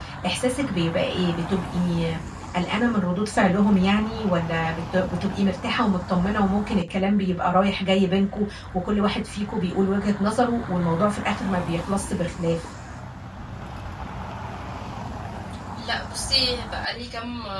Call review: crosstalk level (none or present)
none